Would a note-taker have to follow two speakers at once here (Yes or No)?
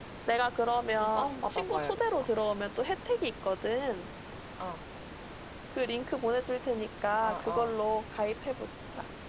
Yes